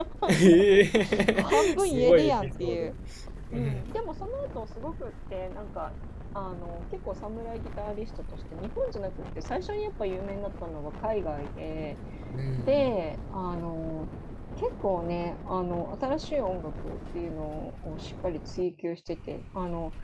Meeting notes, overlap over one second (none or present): present